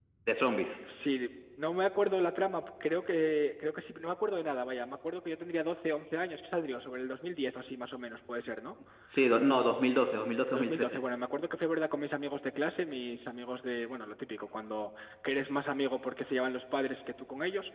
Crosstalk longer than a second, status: none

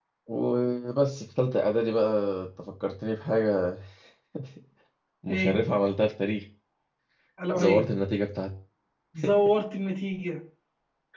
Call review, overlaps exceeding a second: none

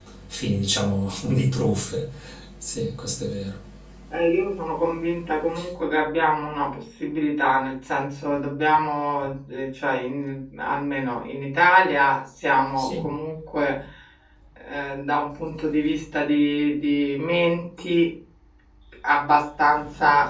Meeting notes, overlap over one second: none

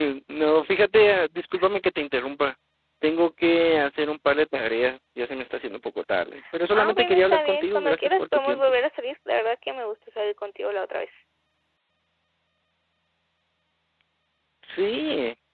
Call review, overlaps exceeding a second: present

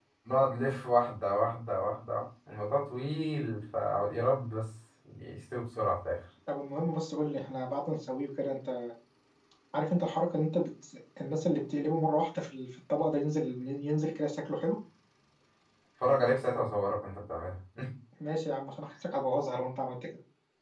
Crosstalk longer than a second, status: none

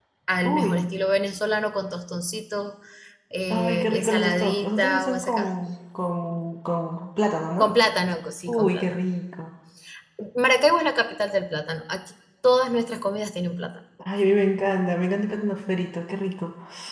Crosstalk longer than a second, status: present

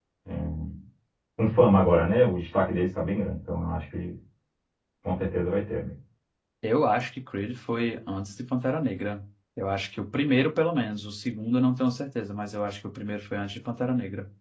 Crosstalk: none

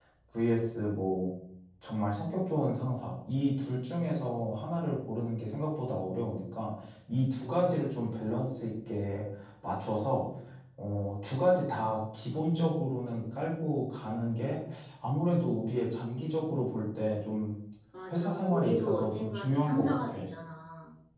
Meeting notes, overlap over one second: present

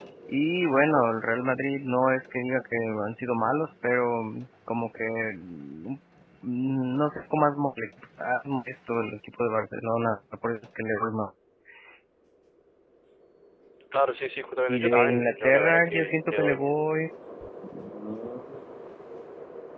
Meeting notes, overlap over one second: present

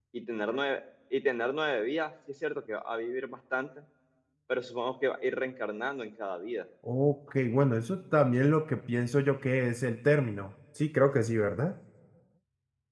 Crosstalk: none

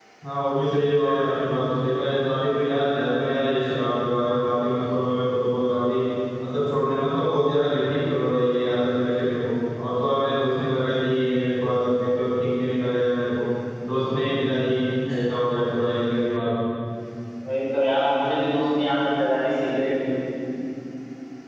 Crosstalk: none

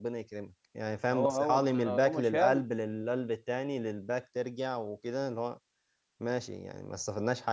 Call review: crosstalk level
present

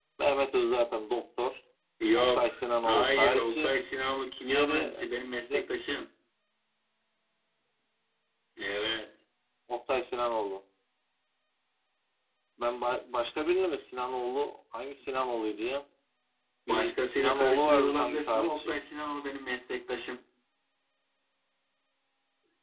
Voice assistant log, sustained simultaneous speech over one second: present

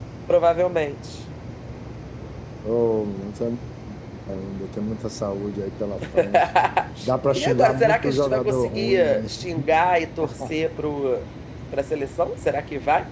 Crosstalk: present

